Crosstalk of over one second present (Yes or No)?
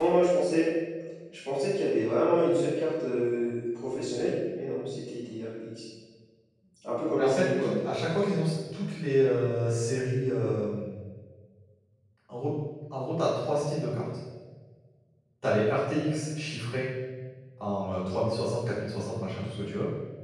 No